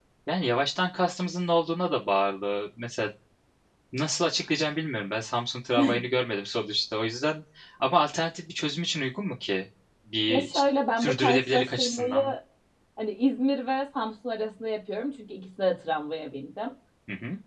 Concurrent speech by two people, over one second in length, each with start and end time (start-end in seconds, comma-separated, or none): 11.0-12.2